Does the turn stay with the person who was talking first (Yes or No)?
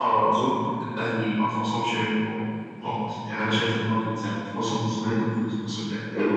No